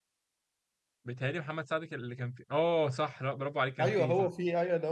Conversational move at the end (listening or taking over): taking over